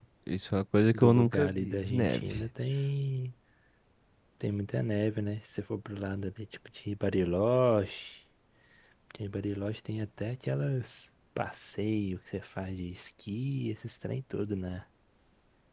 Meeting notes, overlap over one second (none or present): present